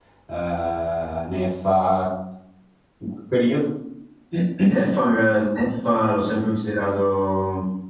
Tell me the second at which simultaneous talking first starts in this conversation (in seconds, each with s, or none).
none